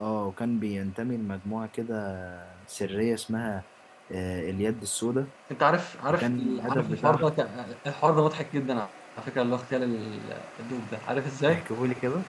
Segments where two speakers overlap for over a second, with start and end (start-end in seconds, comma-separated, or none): 6.1-7.3